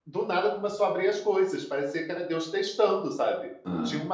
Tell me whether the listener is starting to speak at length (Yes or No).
No